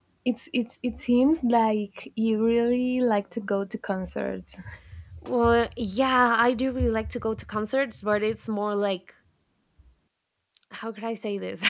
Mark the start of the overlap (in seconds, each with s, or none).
none